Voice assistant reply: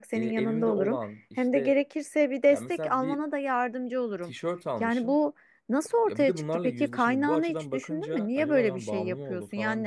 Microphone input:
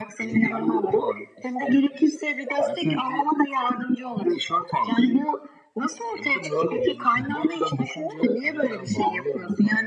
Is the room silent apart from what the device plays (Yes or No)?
Yes